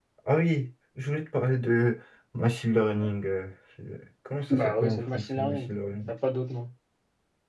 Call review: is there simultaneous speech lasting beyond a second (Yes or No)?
Yes